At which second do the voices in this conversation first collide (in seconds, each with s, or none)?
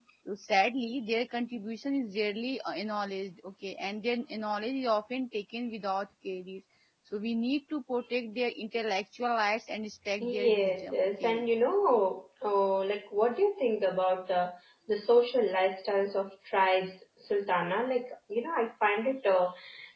10.2 s